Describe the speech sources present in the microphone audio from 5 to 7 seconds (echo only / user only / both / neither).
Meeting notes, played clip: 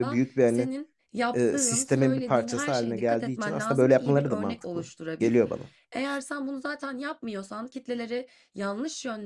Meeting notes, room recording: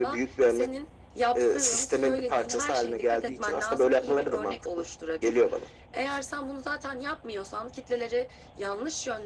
echo only